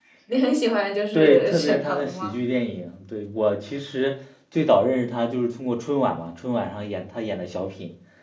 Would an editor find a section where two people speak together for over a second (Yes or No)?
Yes